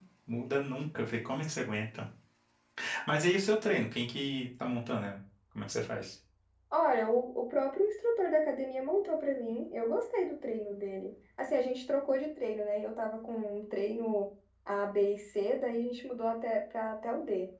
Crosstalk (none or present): none